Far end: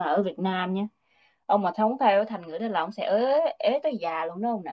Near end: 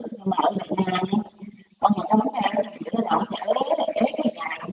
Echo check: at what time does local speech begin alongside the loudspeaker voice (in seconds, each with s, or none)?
none